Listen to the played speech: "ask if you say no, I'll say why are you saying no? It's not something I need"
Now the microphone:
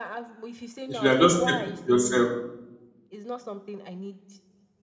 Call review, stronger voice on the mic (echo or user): user